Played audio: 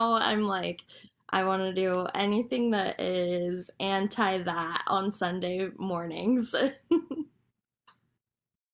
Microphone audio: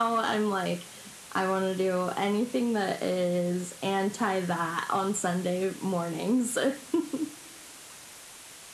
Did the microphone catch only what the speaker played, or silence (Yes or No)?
Yes